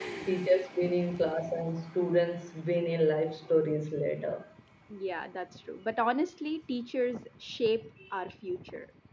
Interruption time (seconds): none

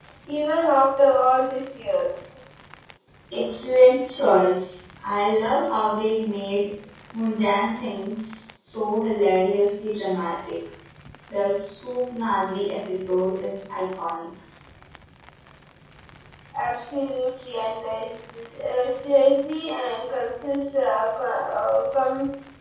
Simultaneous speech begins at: none

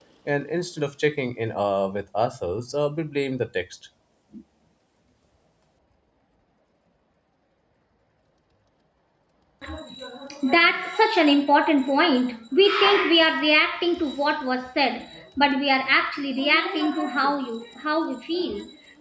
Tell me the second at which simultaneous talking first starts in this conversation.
none

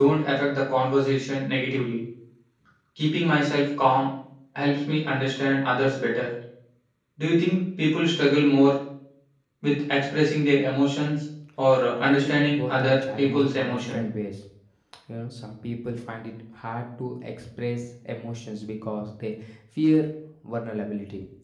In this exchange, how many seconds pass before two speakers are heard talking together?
12.0 s

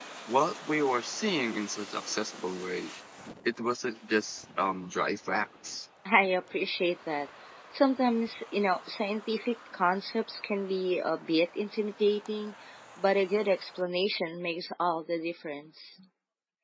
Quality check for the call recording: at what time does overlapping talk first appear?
none

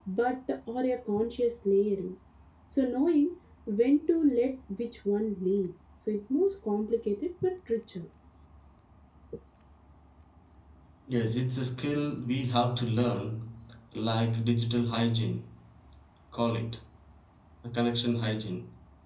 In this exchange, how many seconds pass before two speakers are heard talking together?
none

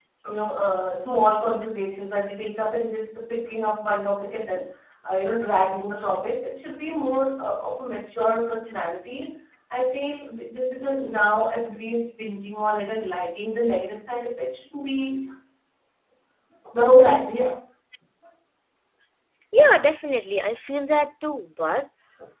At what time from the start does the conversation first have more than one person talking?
none

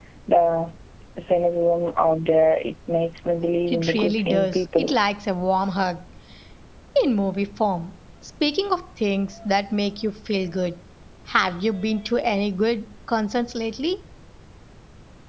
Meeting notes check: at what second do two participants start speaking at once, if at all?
3.7 s

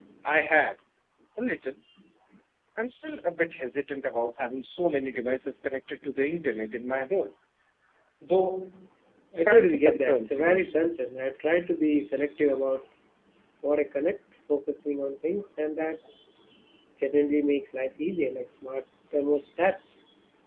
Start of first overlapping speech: 9.4 s

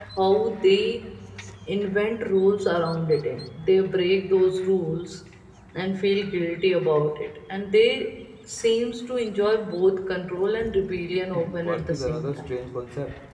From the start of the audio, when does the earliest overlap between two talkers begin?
11.3 s

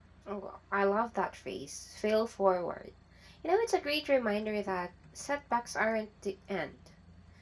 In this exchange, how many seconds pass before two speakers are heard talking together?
none

